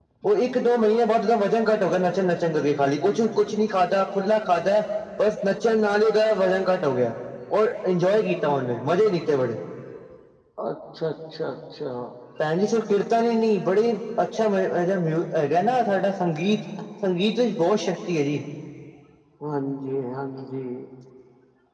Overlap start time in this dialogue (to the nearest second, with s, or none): none